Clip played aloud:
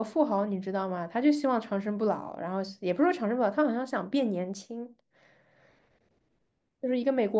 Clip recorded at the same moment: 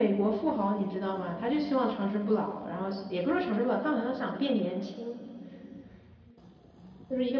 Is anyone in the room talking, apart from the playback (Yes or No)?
No